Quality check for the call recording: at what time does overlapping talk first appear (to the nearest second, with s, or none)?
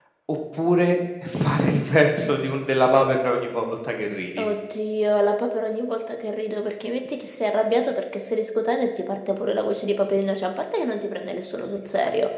none